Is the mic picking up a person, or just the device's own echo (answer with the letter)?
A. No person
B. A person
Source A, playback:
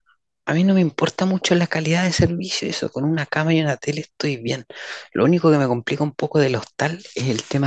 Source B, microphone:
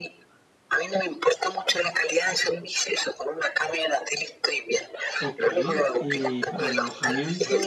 B